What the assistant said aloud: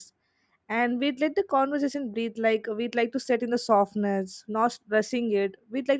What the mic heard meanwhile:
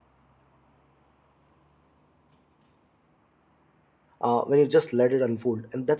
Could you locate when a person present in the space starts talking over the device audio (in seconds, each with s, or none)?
4.2 s